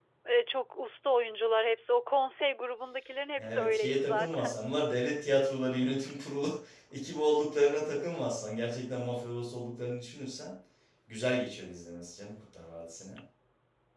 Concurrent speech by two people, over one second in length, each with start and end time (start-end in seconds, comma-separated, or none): 3.4-4.7